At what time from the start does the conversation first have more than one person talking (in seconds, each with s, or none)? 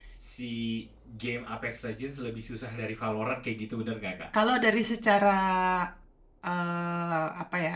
none